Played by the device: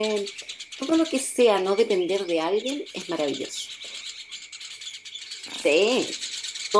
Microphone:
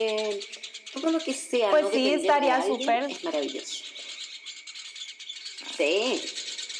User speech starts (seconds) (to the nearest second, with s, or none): 2 s